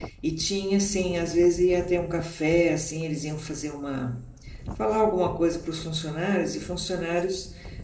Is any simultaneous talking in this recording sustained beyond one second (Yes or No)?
No